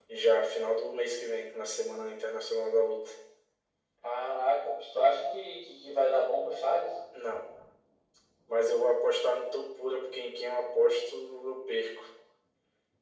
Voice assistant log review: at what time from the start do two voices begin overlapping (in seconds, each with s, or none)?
none